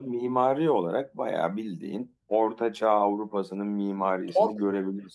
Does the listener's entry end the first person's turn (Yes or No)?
No